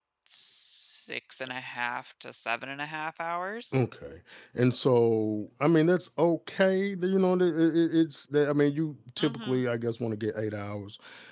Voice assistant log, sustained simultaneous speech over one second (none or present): none